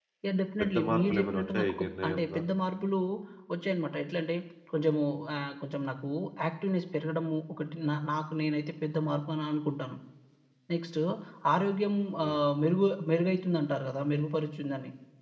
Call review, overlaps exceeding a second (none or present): present